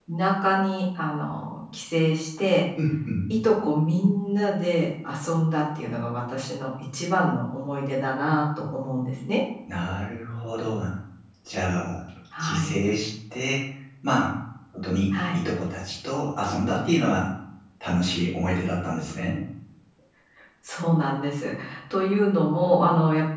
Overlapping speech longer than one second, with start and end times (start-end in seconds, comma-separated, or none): none